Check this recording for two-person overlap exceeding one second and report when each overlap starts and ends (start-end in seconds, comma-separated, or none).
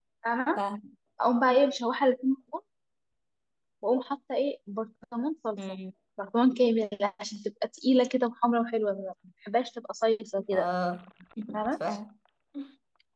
none